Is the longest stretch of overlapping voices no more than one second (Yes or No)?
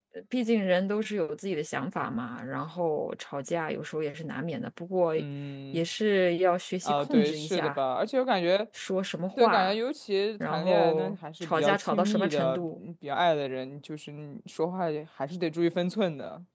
No